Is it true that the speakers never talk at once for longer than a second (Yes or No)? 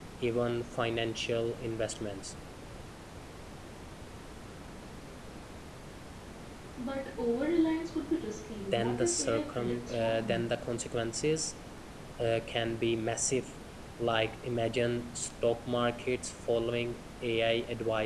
No